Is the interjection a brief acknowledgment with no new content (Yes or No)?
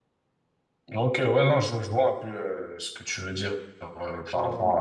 Yes